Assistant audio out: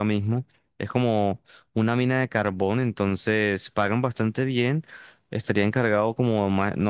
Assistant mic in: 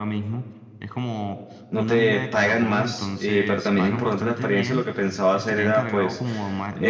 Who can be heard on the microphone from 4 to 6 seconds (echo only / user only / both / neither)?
both